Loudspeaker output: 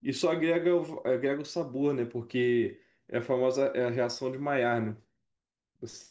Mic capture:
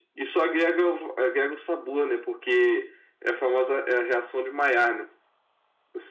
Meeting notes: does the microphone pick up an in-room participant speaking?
No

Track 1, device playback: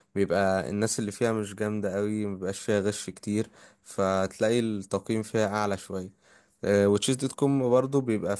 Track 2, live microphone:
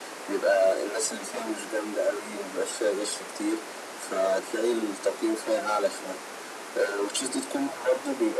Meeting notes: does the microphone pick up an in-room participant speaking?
No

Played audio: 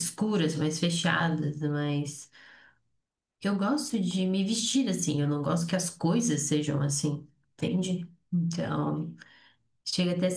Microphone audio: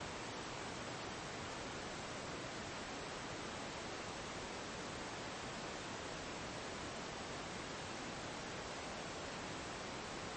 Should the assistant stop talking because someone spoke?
No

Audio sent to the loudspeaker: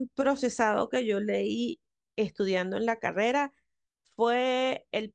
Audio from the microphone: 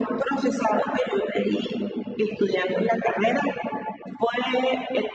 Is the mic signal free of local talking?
Yes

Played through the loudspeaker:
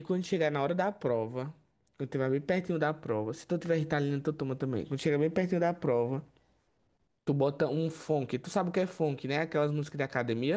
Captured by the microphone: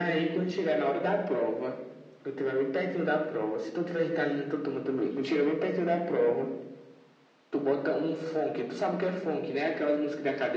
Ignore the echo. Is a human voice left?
No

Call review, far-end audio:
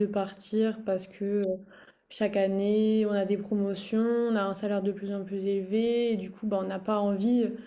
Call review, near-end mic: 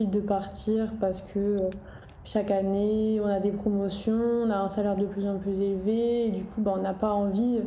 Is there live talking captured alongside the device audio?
No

